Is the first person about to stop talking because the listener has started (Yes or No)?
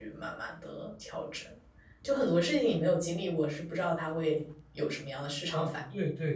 Yes